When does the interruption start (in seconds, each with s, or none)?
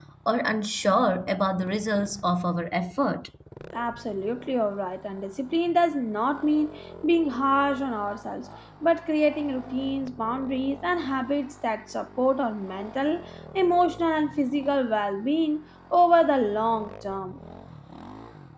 none